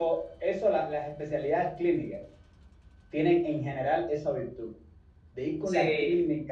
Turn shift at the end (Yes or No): No